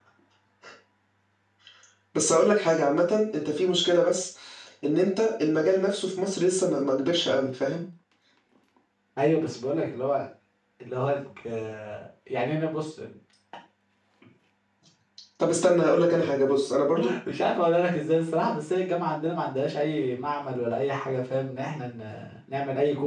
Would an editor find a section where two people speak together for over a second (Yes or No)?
No